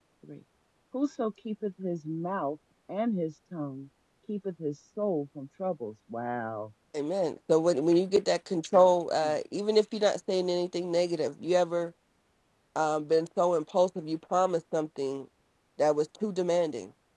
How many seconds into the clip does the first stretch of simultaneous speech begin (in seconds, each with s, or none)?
none